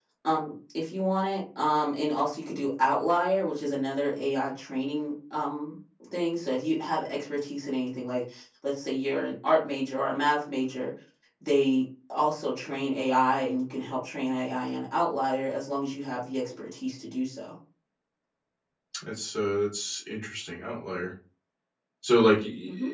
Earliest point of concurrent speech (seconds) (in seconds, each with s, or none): none